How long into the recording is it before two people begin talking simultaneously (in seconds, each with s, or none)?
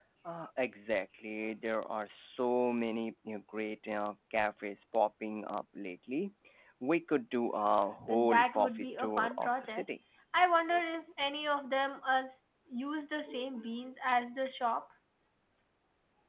8.1 s